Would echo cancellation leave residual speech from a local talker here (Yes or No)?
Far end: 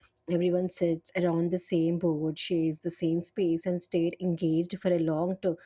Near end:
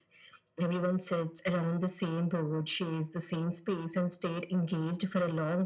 No